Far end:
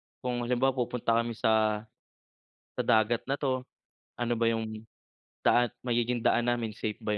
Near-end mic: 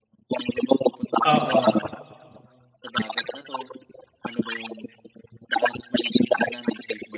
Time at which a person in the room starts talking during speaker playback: 1 s

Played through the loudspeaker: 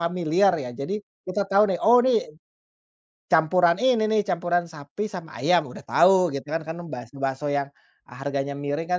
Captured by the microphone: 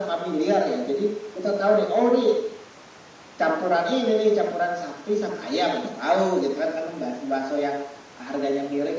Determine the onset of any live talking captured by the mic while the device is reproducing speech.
none

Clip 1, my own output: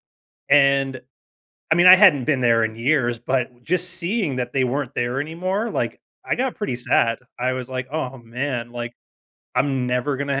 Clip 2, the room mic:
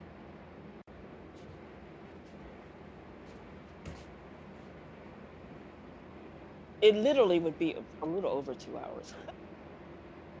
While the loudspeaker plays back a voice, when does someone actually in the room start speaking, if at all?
7 s

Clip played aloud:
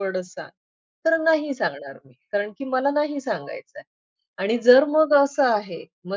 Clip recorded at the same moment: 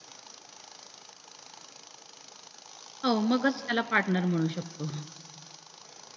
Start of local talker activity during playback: 3 s

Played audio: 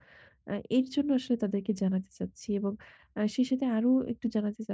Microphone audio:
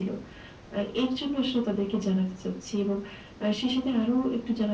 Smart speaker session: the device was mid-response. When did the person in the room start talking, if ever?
none

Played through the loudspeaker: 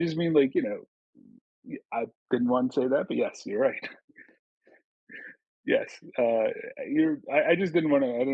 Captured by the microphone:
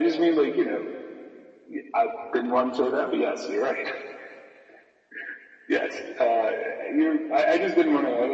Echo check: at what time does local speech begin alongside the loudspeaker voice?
none

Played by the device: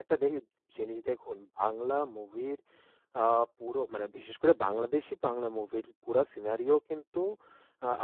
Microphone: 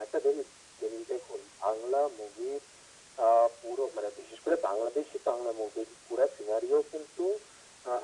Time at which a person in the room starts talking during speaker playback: none

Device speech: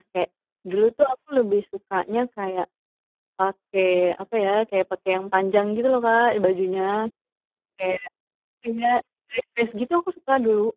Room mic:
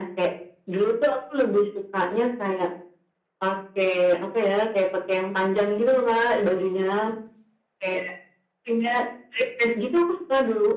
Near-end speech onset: none

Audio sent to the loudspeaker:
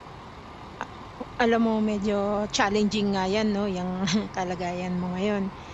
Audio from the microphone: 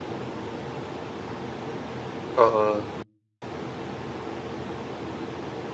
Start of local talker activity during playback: 2 s

